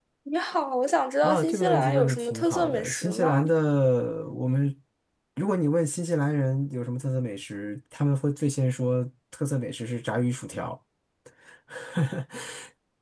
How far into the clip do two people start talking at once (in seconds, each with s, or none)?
1.2 s